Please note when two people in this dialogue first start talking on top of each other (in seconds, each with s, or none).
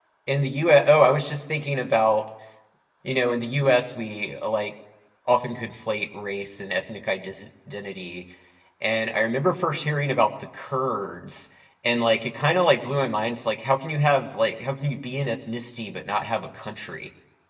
none